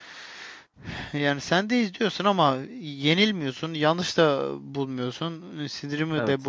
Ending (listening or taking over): listening